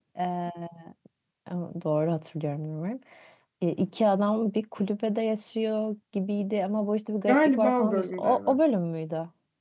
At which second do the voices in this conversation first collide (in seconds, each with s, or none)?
7.3 s